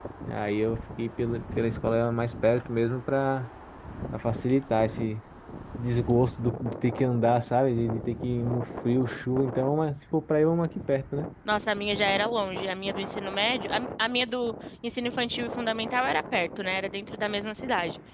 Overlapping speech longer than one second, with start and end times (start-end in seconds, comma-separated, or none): none